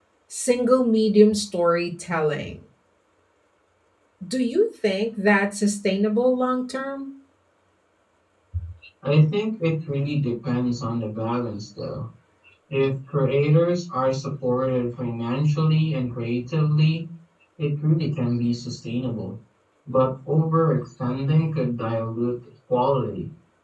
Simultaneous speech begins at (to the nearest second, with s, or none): none